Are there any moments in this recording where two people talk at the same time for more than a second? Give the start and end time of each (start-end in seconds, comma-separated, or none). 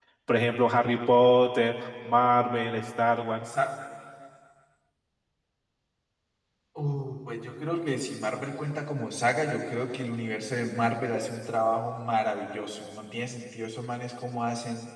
none